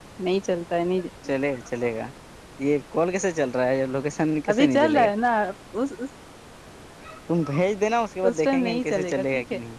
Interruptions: present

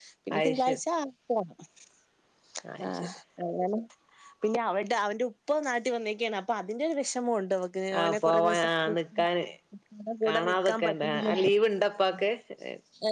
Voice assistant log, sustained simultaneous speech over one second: present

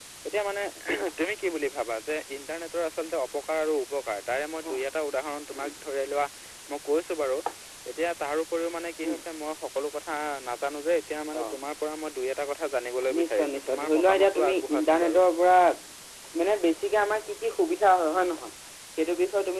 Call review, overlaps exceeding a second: present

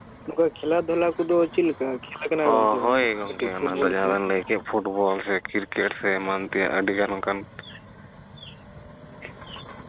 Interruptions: present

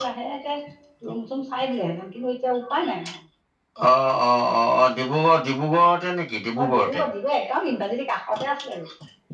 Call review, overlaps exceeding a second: none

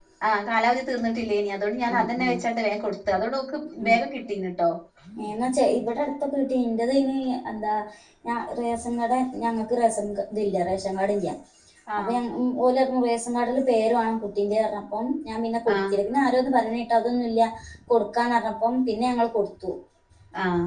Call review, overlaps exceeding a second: none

